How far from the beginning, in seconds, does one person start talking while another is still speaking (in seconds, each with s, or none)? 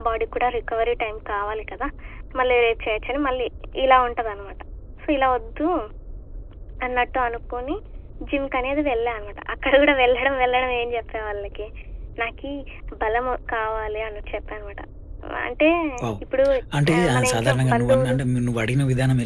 17.0 s